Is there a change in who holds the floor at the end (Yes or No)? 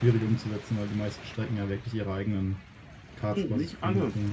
Yes